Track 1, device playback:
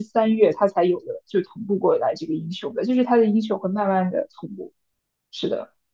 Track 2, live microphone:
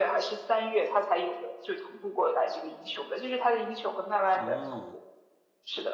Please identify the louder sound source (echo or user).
echo